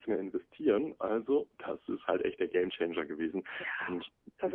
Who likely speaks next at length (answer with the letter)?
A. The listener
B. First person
A